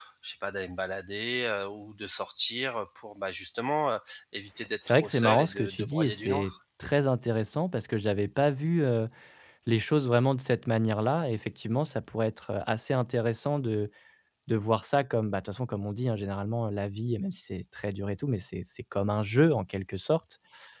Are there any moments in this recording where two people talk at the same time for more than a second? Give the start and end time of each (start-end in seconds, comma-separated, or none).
4.9-6.5